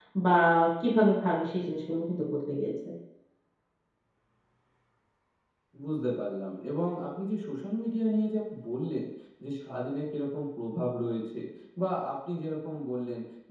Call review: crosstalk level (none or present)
none